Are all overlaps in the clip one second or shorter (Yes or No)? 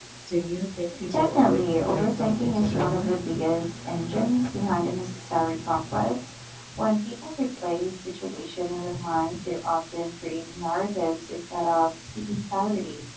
No